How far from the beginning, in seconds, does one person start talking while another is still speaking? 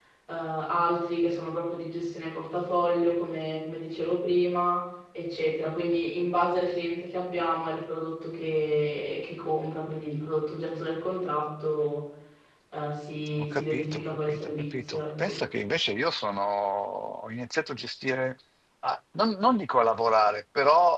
13.4 s

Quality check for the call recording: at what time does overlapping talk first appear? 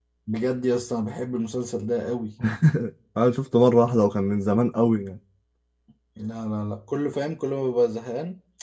none

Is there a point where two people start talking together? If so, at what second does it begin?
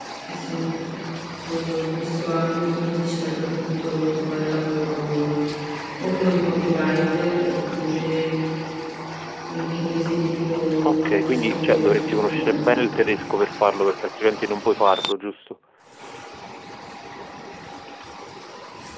10.8 s

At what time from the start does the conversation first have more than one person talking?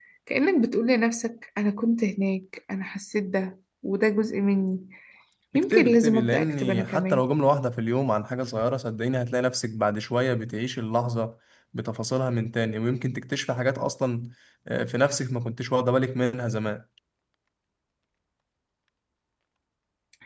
5.5 s

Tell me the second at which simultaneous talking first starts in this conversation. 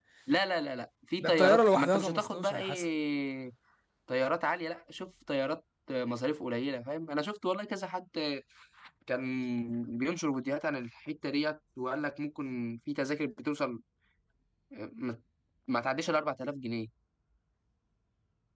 1.2 s

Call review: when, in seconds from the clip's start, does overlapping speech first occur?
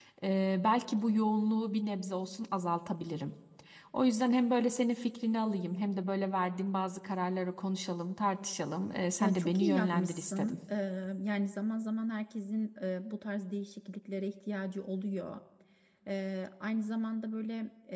9.2 s

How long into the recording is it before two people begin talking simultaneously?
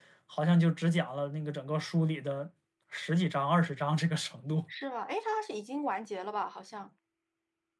none

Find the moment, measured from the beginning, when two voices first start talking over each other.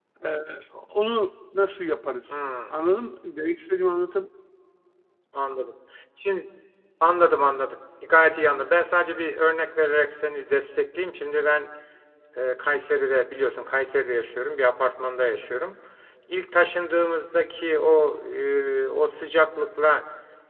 none

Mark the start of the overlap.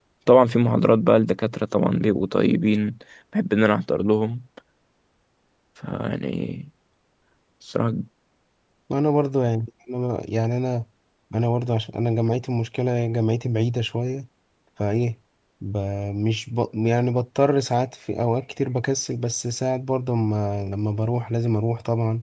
none

